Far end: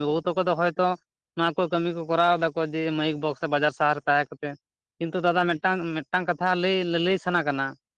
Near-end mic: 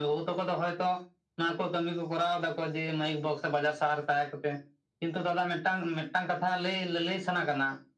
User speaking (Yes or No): No